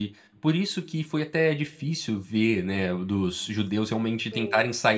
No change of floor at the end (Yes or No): Yes